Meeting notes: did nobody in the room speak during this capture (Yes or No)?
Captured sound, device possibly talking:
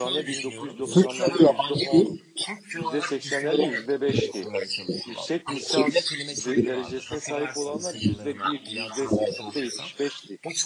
No